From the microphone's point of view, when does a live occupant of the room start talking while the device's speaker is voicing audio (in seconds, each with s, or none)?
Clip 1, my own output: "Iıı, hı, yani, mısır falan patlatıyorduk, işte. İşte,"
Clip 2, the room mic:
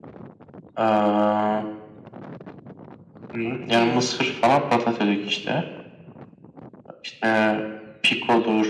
3.7 s